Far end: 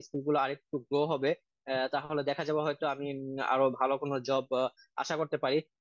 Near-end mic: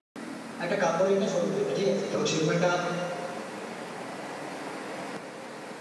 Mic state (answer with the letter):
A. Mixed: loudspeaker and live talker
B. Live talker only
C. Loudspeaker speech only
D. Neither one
B